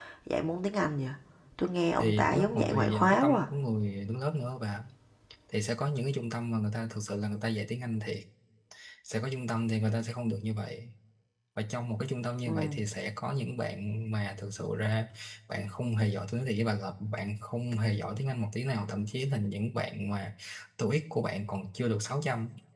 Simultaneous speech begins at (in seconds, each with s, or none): 2.0 s